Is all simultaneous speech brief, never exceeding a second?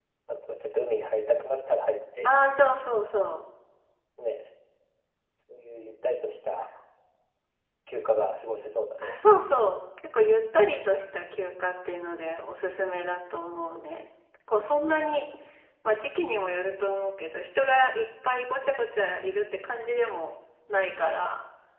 Yes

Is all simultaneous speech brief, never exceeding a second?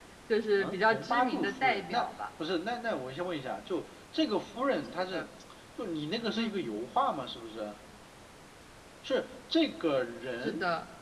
No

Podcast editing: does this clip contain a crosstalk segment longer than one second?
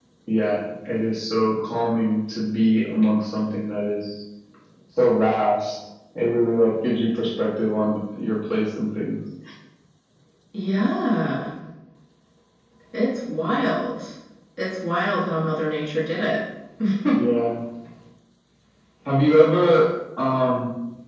No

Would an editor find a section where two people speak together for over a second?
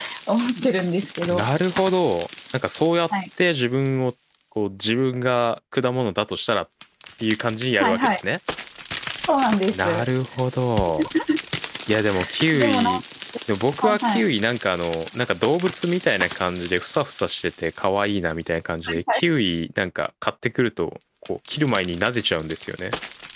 No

